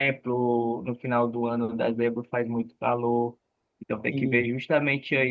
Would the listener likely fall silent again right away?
Yes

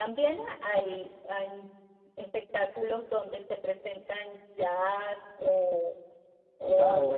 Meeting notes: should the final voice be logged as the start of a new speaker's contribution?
Yes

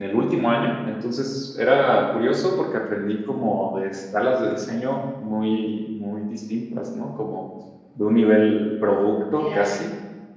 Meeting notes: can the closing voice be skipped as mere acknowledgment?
Yes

